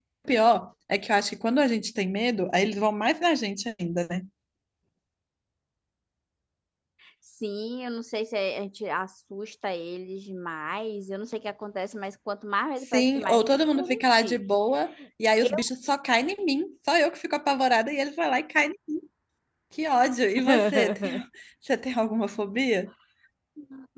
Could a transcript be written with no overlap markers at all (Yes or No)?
No